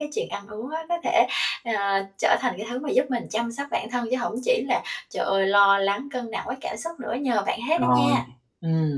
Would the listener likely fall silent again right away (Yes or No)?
No